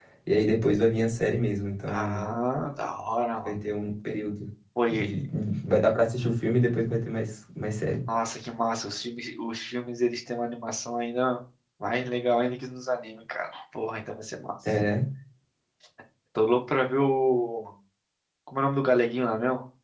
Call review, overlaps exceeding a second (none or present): none